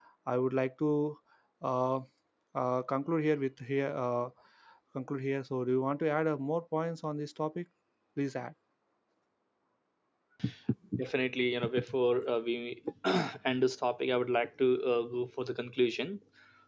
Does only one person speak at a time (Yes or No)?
Yes